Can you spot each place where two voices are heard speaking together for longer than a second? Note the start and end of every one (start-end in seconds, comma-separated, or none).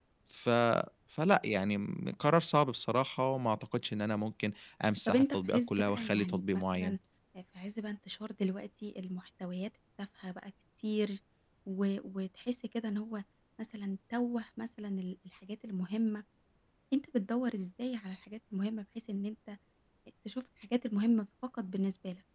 5.1-7.0